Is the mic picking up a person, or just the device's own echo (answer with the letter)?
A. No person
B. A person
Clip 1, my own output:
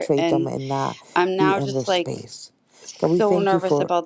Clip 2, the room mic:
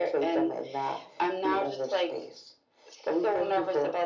A